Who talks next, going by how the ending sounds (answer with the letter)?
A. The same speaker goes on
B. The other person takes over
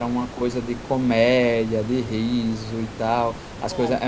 A